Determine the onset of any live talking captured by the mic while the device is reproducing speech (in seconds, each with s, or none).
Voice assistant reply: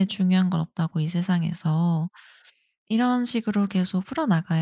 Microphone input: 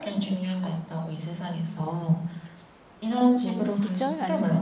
3.4 s